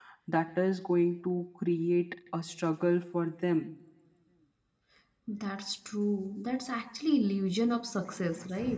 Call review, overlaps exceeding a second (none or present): none